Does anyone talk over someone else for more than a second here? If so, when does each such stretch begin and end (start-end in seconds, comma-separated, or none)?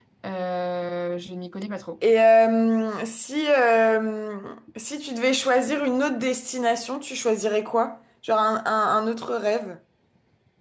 none